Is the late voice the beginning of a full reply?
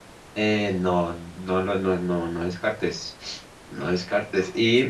No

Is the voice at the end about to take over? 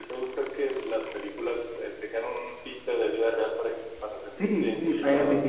Yes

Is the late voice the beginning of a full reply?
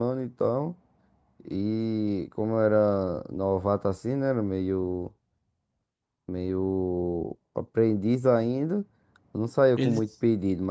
No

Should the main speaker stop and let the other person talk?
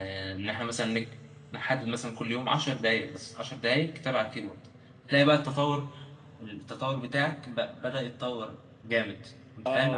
Yes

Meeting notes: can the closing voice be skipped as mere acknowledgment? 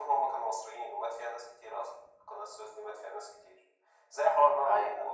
Yes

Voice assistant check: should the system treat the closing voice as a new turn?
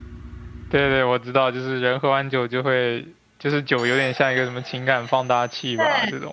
Yes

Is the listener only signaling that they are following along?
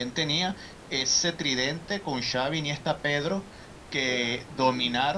Yes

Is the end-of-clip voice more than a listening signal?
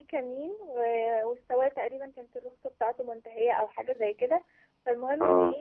No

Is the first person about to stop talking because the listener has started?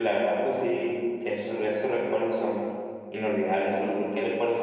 No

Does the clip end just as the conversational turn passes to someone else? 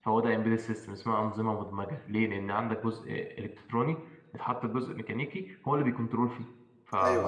Yes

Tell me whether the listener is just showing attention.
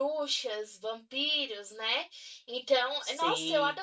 Yes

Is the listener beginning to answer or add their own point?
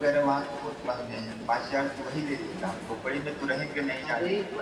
Yes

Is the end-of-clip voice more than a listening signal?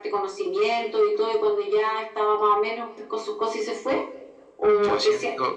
Yes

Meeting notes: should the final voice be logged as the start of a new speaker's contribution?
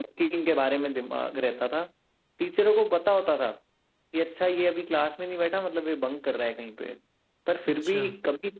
No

